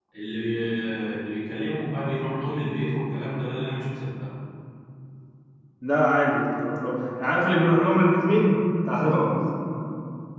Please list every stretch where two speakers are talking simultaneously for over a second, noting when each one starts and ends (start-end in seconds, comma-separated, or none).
none